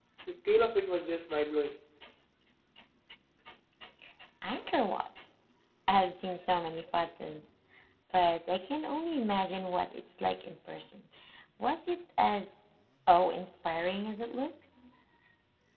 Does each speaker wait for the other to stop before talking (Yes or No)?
Yes